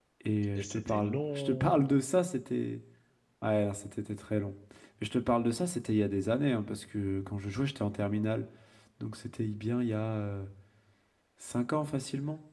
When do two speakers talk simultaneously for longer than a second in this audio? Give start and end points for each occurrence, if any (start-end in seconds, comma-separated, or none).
0.5-2.0